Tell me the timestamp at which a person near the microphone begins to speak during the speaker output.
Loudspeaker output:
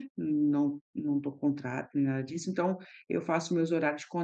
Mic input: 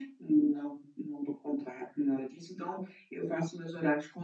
none

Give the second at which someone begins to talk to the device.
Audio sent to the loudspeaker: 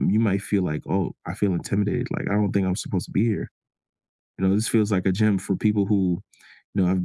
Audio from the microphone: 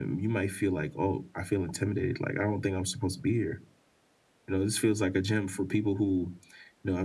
none

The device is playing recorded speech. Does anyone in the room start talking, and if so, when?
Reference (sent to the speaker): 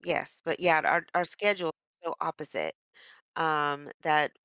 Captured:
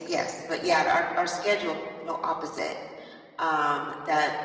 none

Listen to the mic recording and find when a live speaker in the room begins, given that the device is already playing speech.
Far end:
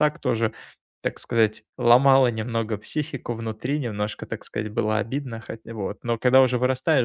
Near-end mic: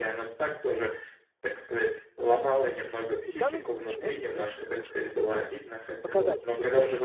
3 s

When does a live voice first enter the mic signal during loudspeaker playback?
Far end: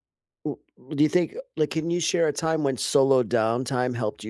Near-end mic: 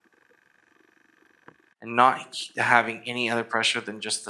2 s

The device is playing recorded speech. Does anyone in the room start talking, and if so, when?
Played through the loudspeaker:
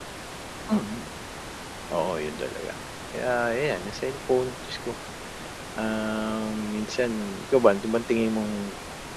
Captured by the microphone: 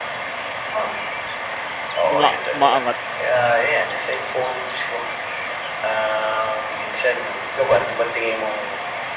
2 s

